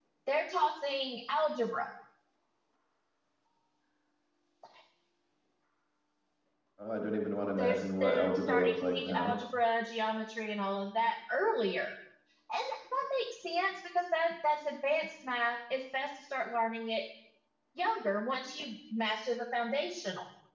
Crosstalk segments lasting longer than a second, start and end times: 7.5-9.4

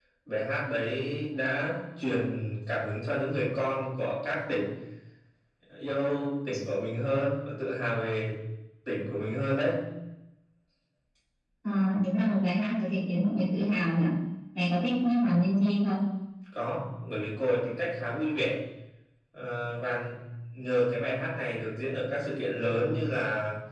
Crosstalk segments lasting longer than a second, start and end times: none

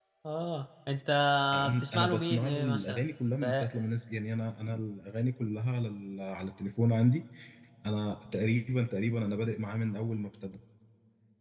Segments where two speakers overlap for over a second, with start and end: 1.8-3.0

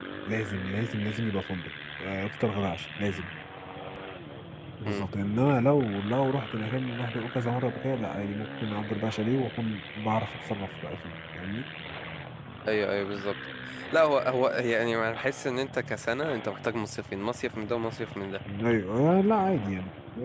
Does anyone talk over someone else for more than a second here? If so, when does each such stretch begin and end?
none

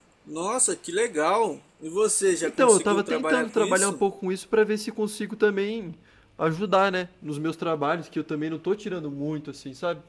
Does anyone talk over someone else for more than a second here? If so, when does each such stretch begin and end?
2.4-4.0

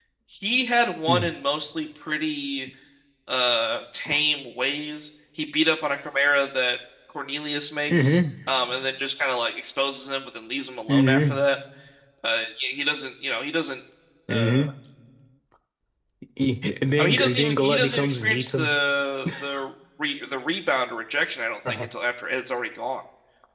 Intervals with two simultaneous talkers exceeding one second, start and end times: 17.0-18.7

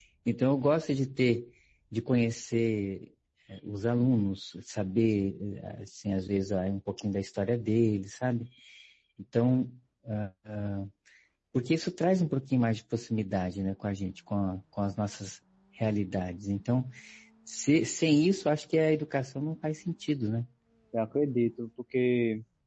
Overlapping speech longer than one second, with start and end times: none

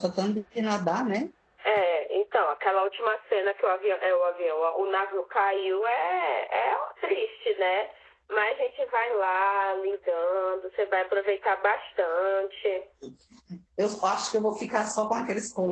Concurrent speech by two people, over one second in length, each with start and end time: none

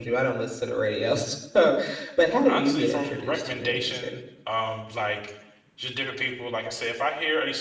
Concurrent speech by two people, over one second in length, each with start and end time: 2.4-4.1

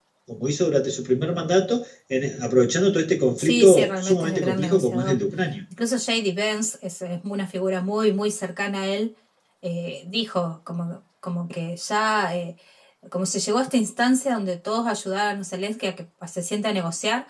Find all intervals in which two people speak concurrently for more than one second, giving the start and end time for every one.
3.4-5.2

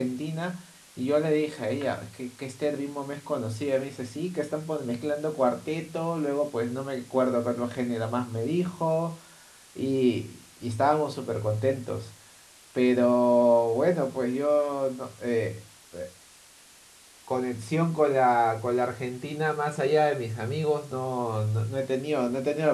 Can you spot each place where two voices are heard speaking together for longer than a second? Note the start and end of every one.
none

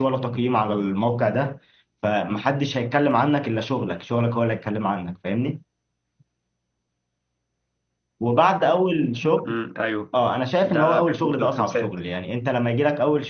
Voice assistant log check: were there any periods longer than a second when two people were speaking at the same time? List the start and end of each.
10.6-11.9

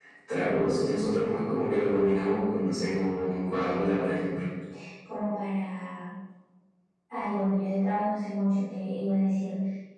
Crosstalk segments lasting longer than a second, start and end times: none

